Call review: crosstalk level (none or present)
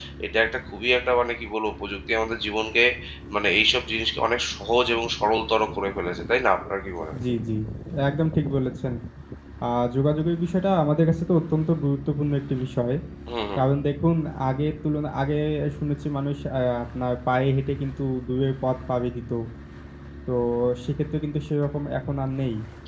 none